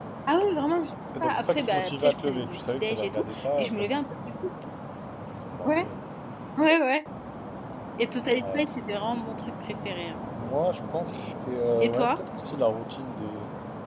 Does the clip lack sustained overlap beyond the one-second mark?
No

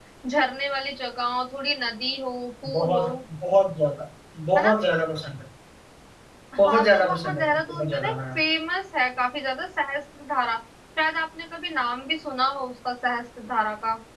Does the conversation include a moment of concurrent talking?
Yes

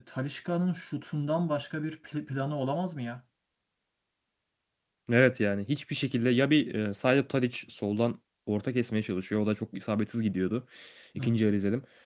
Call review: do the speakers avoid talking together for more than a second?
Yes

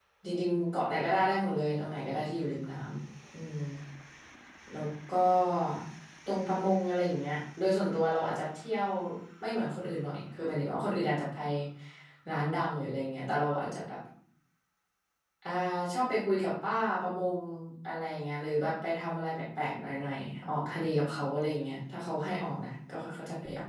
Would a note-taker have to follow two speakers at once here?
No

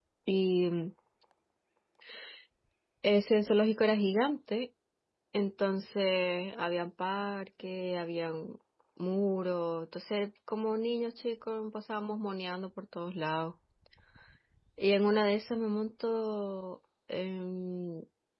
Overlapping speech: No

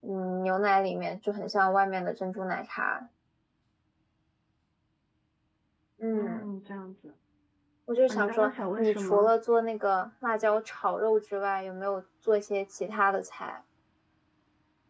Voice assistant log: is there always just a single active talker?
No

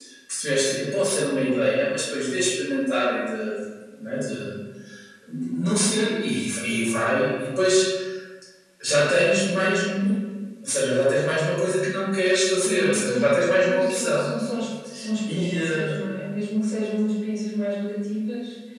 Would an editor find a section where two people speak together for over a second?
Yes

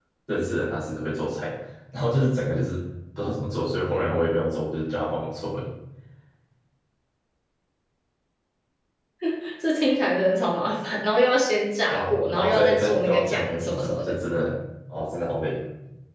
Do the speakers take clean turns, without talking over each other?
No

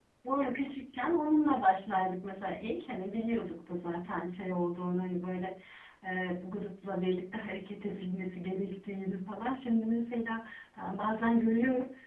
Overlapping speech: No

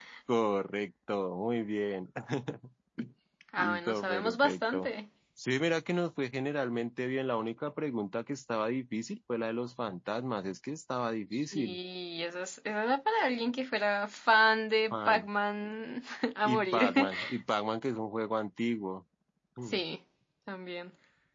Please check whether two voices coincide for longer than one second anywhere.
Yes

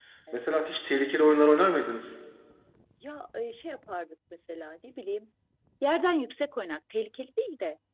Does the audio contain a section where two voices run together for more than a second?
No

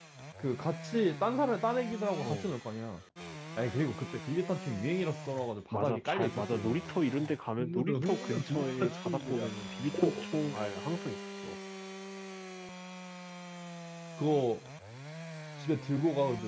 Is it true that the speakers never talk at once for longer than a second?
No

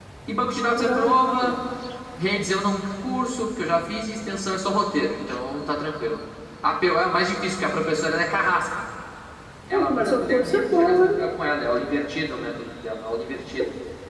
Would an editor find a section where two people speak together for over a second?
Yes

